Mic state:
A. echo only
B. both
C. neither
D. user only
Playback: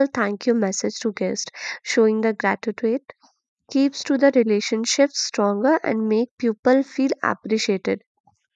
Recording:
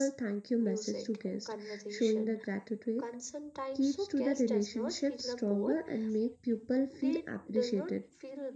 B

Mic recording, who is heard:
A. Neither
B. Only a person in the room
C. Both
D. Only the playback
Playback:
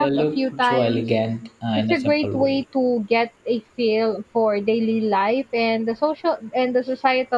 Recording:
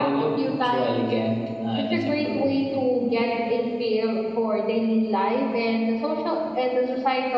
D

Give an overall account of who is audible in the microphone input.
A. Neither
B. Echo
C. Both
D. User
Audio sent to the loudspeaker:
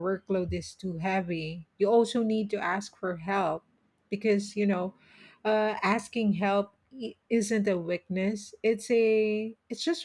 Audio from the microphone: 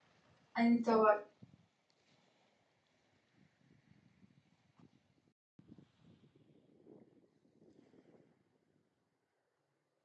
D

